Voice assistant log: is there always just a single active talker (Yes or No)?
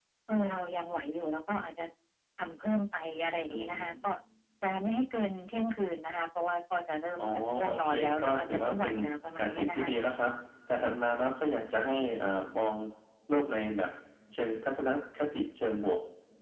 No